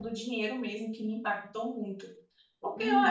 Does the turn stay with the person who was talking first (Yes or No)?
No